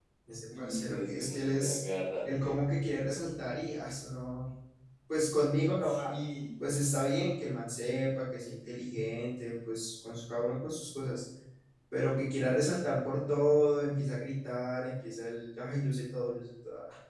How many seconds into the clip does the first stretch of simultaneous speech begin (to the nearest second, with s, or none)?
1 s